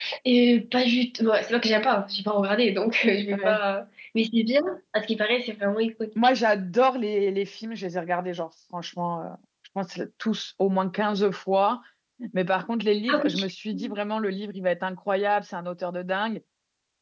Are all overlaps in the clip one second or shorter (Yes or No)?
Yes